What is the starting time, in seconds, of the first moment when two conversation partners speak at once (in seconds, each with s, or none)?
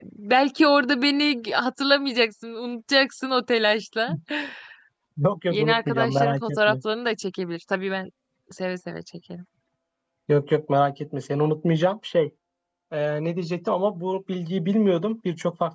5.5 s